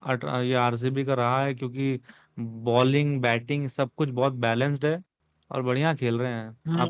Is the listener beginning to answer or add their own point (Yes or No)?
Yes